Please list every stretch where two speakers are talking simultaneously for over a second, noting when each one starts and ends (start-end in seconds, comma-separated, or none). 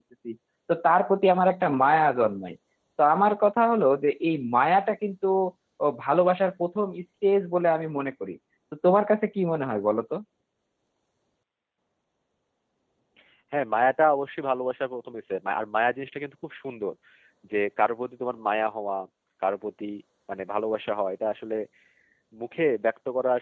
none